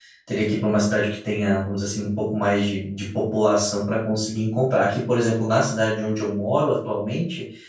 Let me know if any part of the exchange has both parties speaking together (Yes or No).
No